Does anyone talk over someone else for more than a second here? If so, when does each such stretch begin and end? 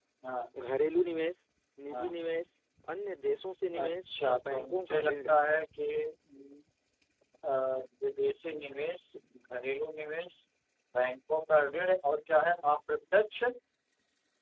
3.8-5.3

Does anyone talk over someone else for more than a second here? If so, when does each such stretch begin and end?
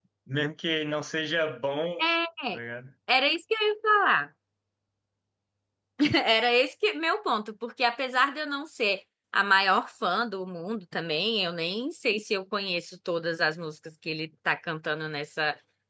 none

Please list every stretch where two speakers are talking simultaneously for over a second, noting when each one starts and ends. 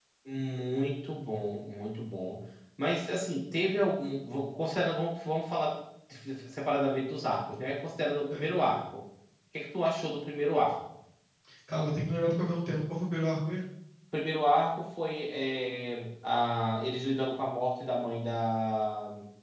none

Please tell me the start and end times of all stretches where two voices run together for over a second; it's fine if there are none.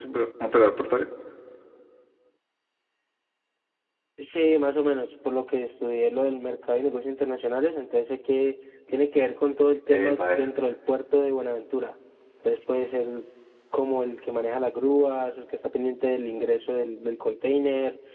none

